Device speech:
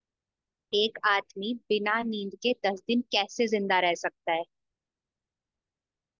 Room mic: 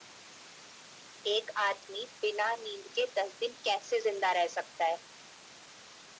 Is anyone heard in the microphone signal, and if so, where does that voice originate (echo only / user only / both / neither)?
echo only